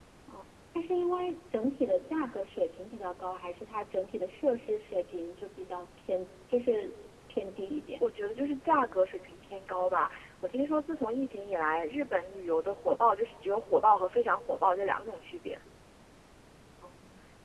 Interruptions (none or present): none